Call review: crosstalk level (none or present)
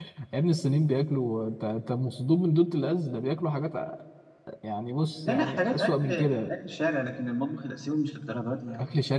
present